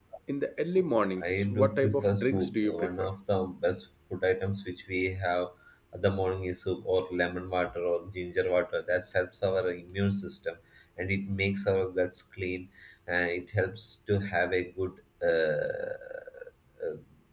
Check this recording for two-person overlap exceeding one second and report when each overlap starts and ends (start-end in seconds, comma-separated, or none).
1.2-3.1